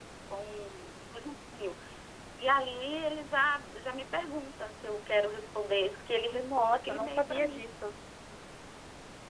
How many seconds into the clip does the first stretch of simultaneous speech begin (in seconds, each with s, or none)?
6.3 s